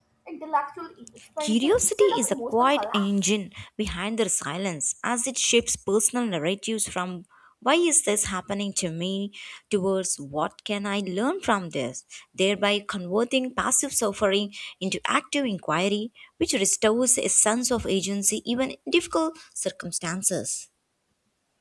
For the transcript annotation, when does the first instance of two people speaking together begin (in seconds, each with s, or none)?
1.4 s